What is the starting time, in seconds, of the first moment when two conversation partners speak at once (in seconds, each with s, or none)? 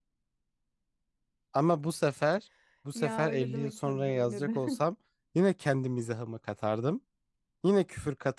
3.0 s